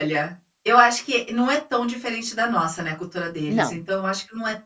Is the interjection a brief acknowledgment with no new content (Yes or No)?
Yes